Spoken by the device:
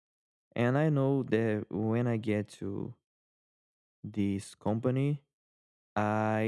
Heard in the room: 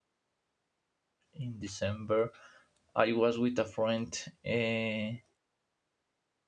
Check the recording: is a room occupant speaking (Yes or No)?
Yes